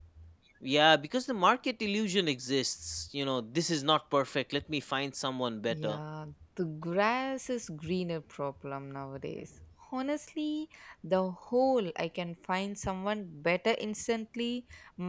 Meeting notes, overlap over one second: none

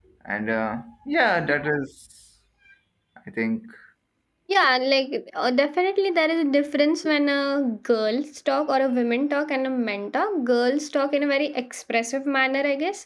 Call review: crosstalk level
none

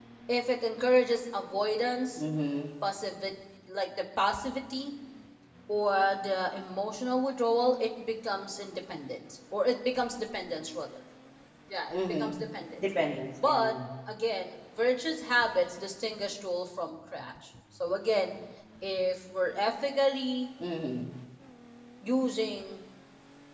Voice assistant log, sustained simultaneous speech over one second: none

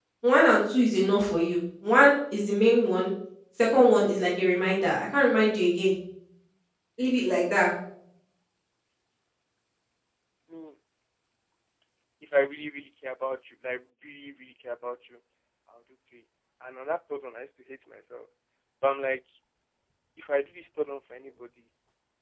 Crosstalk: none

